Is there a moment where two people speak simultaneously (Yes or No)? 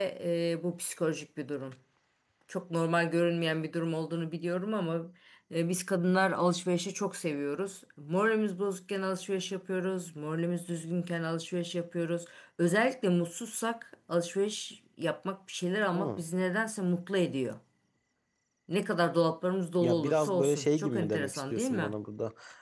Yes